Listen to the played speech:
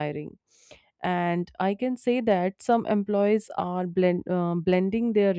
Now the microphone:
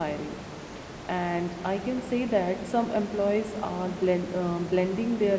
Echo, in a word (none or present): present